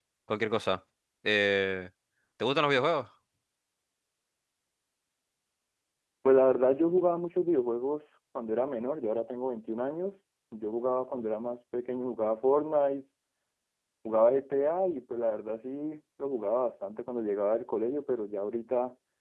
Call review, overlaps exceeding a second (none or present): none